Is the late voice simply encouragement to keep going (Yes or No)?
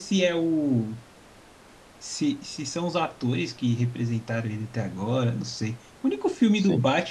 Yes